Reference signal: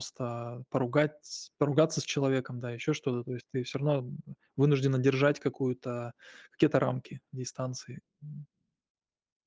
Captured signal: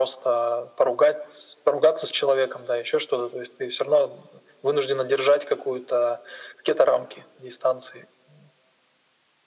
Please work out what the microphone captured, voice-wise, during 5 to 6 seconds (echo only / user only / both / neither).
echo only